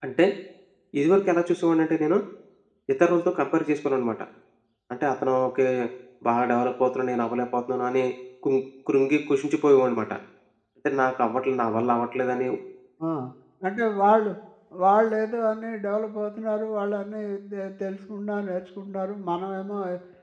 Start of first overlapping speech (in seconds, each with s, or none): none